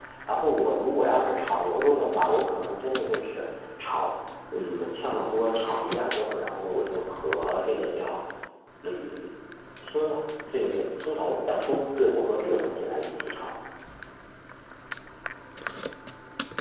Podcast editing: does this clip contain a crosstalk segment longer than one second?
No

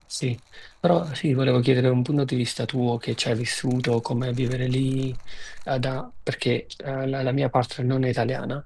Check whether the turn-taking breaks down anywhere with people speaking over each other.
No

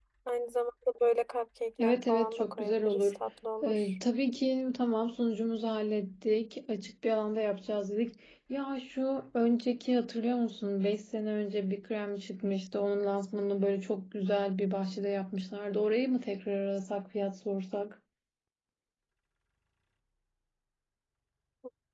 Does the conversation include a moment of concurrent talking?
Yes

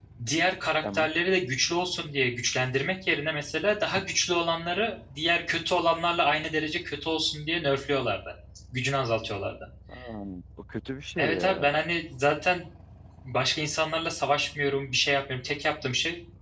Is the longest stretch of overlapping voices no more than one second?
Yes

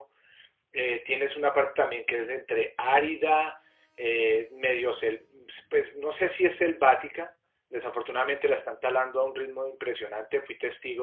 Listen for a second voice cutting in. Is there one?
No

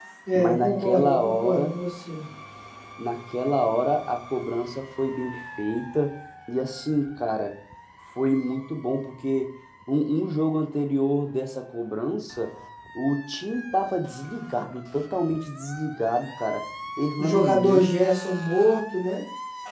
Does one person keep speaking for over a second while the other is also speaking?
Yes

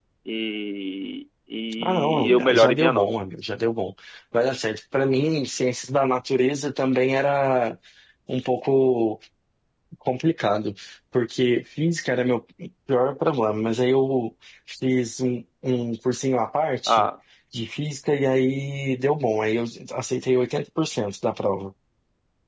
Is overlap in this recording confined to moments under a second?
No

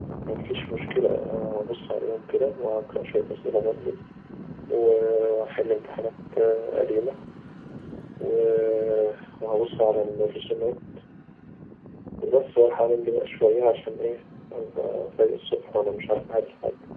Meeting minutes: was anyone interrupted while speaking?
No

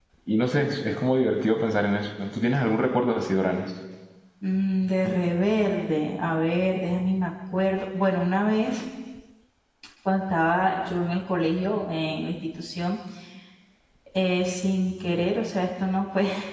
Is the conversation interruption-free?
Yes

